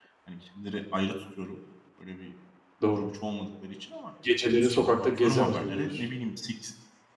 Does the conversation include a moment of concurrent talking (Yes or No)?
Yes